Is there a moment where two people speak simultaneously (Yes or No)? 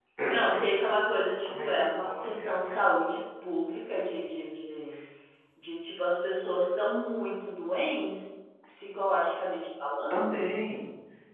Yes